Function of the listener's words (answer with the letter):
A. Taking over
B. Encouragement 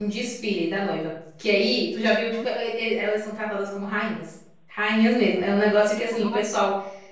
B